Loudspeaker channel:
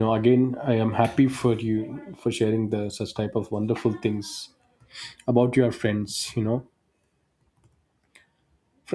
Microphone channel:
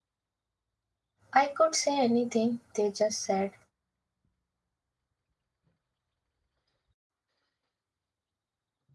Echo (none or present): none